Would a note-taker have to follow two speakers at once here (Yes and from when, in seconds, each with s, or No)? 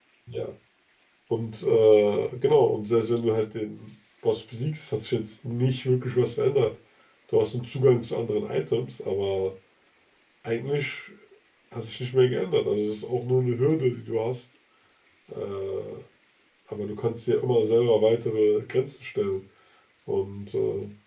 No